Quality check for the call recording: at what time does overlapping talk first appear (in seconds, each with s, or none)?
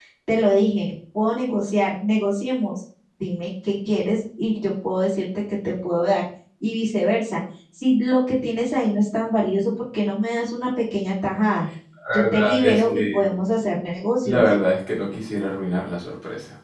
12.1 s